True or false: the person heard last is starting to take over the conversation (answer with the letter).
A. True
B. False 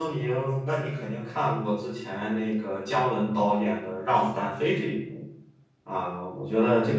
A